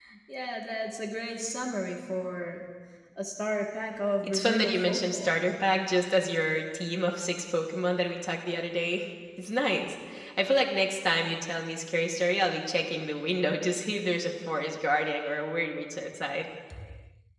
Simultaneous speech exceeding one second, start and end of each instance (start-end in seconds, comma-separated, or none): 4.2-5.5